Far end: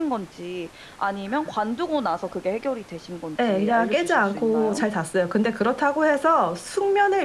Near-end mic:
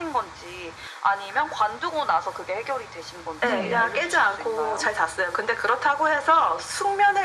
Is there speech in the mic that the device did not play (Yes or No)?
Yes